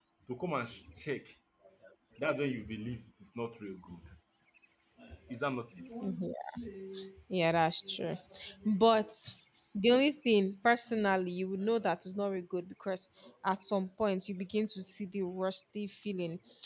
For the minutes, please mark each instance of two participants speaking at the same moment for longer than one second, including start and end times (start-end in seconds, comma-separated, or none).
none